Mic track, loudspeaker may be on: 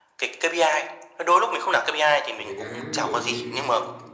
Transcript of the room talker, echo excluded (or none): một thời gian ngắn ví dụ như